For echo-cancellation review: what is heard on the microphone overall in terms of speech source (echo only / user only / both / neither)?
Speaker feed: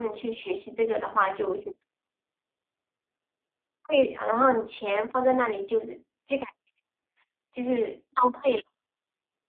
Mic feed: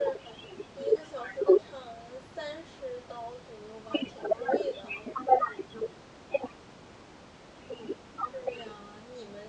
both